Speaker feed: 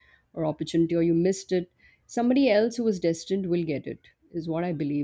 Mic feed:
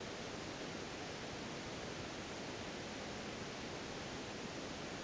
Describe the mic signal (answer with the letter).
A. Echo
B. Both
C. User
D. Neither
D